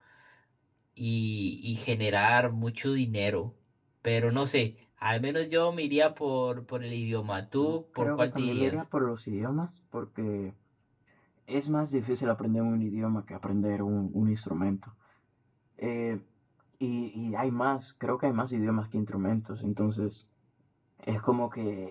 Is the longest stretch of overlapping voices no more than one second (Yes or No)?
No